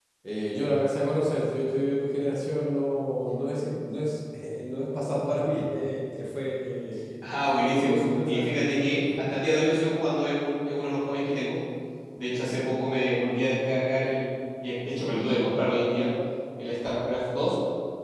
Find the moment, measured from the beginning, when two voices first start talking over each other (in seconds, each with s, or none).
7.7 s